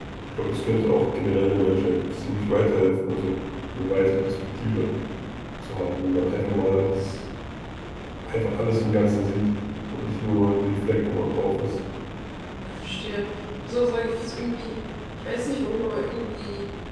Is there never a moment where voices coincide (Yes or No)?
Yes